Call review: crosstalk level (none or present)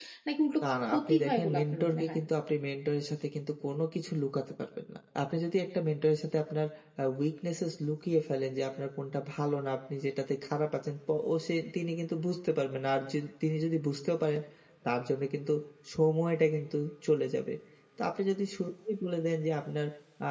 present